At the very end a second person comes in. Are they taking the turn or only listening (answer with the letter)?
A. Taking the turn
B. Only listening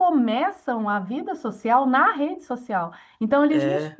B